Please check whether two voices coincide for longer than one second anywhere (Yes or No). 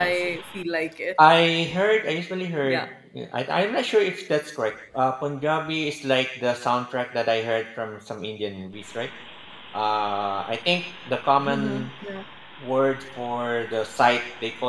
No